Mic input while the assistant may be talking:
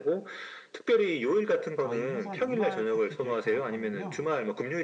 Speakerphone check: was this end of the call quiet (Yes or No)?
No